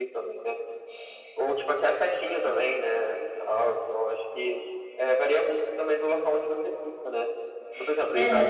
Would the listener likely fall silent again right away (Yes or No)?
Yes